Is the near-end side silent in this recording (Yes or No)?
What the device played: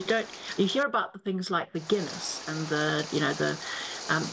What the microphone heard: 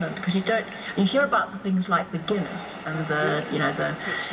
No